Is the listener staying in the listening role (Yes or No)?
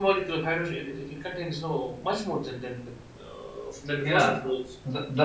No